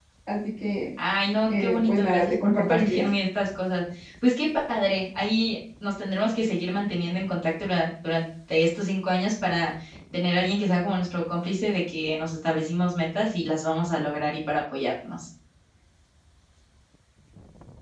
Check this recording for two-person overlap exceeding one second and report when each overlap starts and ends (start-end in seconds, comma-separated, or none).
1.5-3.0